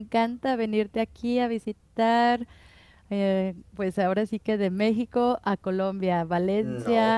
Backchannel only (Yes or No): Yes